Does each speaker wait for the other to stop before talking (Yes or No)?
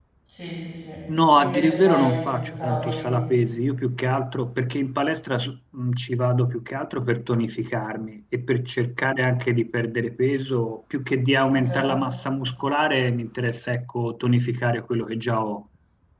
No